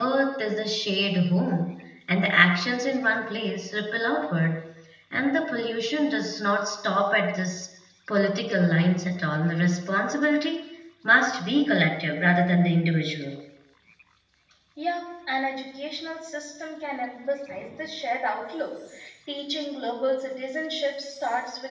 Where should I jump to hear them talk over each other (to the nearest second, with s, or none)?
none